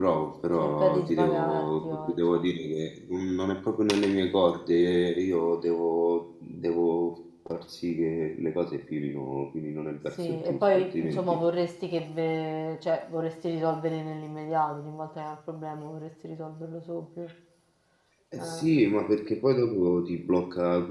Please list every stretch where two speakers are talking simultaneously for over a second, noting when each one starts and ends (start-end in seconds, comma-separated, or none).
0.6-2.4, 10.1-11.4